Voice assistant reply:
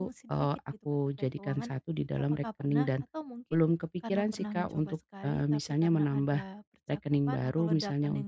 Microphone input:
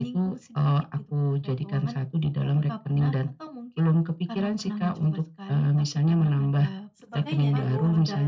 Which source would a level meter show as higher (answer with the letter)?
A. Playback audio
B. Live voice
A